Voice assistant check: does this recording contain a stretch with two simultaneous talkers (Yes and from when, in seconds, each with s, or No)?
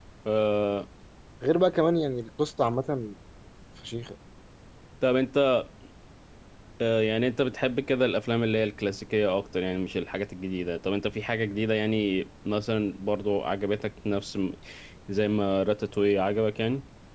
No